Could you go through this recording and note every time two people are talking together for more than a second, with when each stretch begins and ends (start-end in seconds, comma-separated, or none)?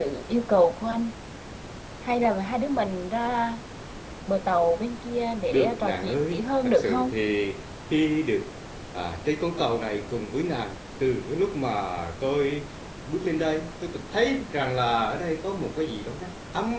5.5-7.1